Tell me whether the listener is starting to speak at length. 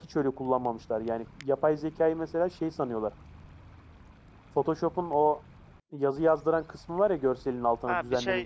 Yes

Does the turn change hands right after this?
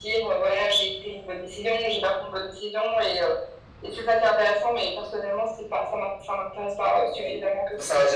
Yes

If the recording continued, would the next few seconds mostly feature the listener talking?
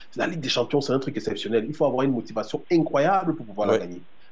No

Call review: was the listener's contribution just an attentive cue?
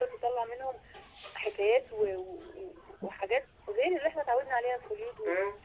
No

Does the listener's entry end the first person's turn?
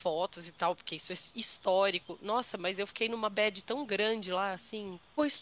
Yes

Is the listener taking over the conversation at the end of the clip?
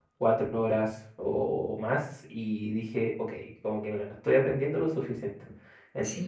No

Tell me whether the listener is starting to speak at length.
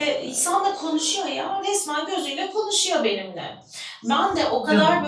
No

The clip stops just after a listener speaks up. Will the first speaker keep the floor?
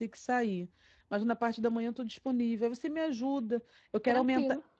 Yes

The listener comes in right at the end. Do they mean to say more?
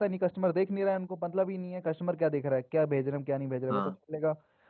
No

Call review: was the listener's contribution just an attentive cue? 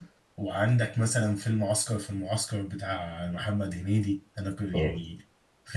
Yes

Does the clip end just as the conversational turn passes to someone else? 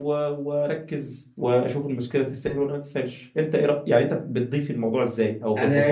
Yes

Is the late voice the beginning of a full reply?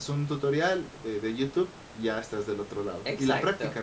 Yes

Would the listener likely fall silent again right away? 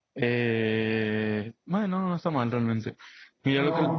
Yes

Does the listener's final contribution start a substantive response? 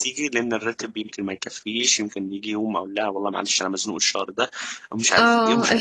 Yes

